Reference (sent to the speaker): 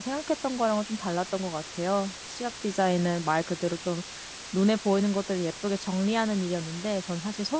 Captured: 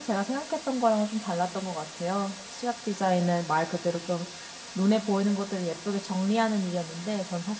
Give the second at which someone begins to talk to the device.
none

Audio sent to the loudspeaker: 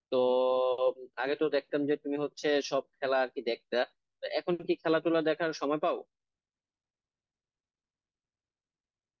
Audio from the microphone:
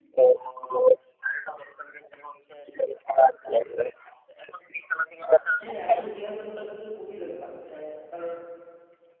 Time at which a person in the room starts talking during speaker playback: 6 s

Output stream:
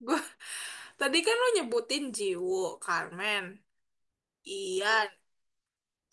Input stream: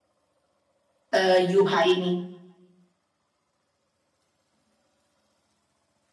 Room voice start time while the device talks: 1 s

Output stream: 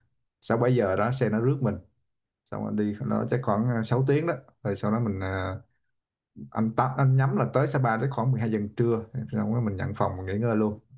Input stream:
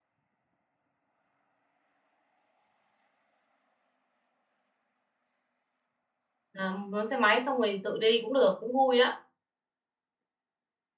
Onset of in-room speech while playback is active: 7 s

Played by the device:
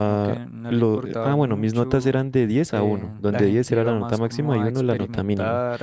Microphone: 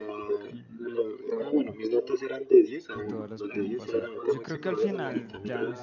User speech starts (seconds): 3 s

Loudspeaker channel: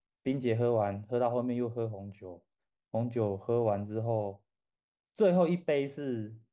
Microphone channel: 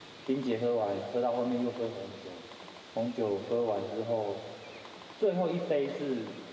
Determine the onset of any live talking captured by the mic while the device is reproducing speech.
none

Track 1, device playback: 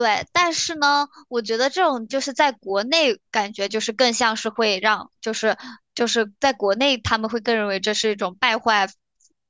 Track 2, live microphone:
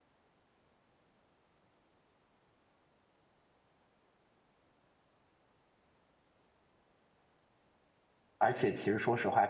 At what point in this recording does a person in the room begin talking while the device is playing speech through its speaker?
8 s

